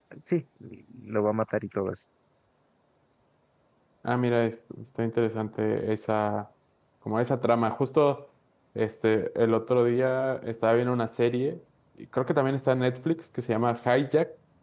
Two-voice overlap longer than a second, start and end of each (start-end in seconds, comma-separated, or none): none